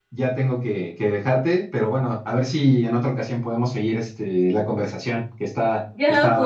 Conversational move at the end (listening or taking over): taking over